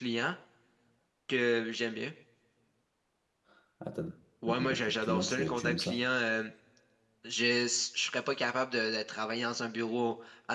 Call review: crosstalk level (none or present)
present